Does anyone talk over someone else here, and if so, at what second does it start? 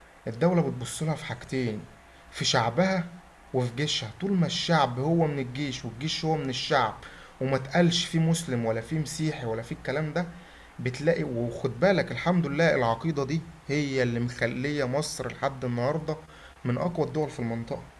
none

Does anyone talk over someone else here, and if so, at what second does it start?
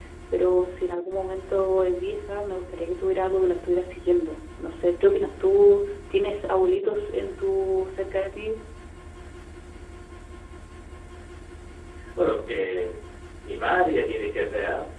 none

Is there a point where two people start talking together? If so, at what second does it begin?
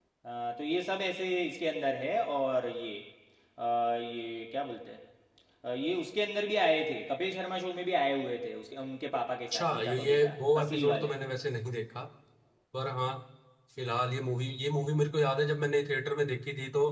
9.5 s

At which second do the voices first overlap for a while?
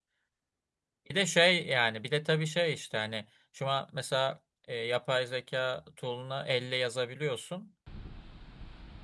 none

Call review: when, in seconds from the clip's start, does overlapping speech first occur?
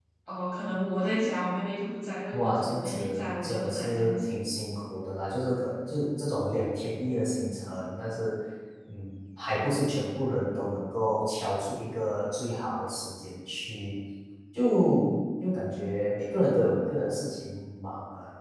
2.3 s

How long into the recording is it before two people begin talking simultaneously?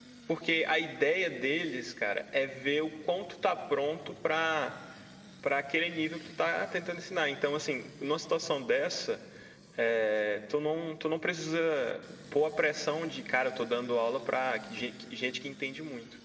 none

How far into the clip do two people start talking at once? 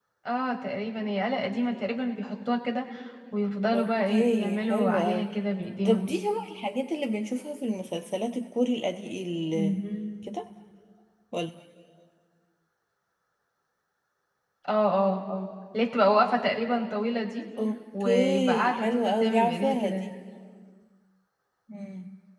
3.7 s

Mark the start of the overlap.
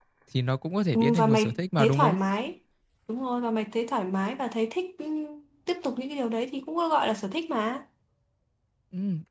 0.9 s

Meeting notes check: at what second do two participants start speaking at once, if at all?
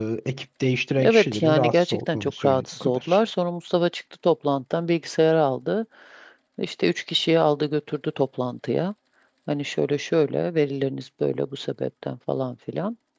1.0 s

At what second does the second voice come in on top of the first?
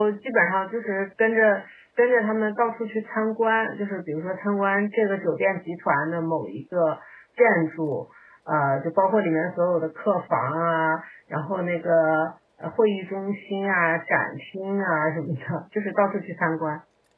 none

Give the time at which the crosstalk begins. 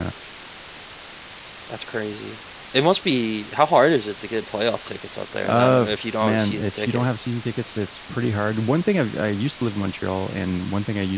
5.4 s

